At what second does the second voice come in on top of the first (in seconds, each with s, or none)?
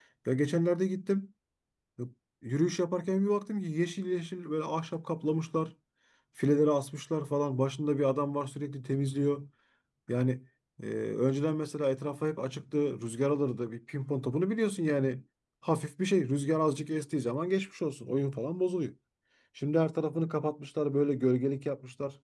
none